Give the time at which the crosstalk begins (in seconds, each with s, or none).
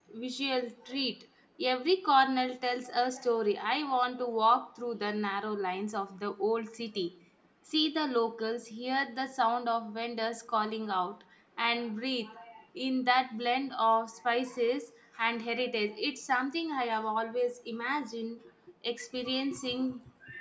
none